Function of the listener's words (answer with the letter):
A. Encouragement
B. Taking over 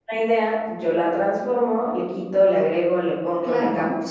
B